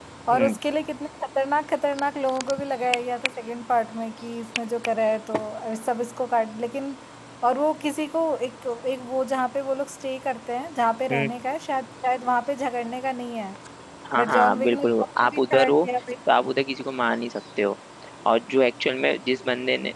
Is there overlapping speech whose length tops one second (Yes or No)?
Yes